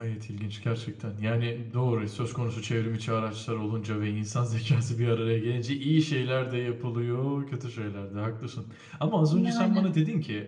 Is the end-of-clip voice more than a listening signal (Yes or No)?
No